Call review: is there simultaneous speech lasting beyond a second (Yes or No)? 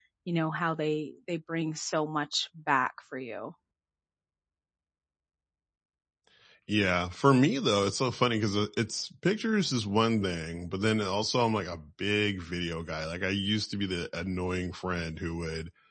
No